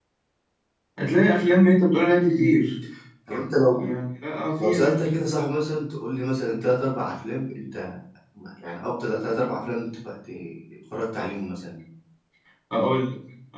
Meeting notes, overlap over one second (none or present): none